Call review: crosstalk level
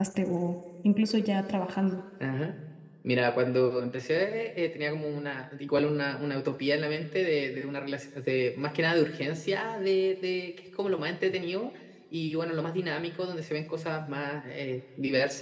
none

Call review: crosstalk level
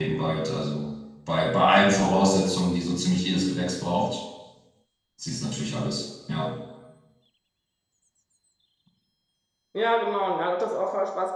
none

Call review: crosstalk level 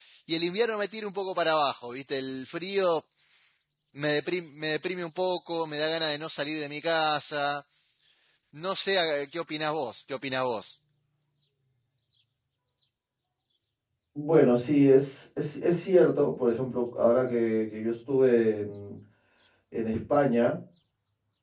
none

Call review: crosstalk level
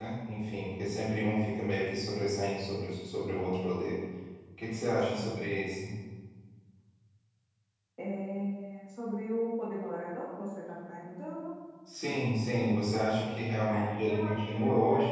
present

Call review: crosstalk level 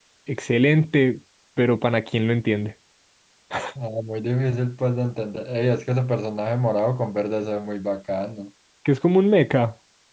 none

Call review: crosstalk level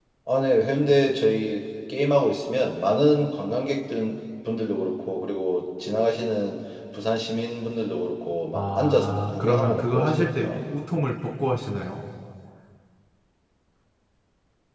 present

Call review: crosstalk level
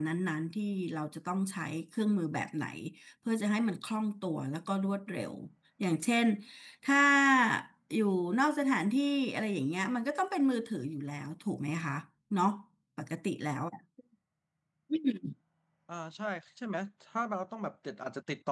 none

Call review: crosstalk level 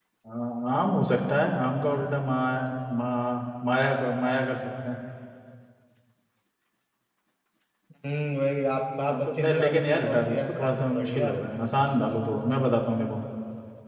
present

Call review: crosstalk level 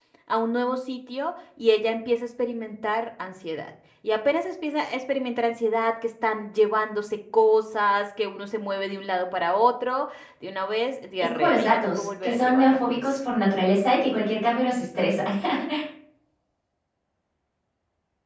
present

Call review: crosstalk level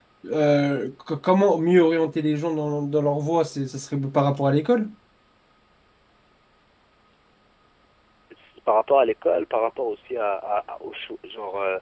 none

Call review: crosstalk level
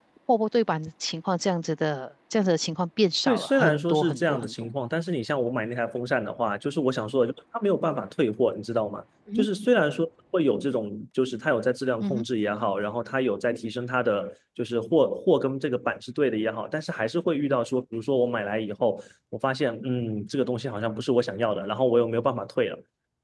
present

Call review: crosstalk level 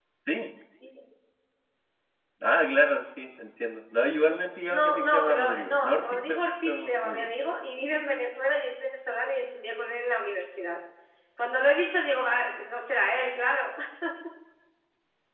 present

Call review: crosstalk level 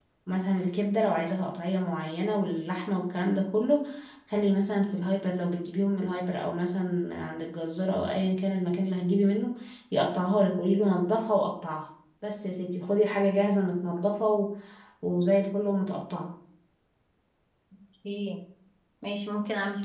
none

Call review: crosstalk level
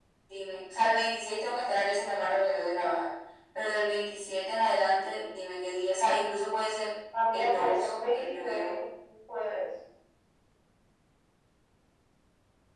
present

